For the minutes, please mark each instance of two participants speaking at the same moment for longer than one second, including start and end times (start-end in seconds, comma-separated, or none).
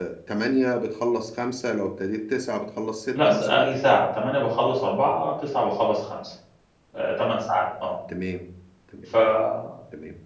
none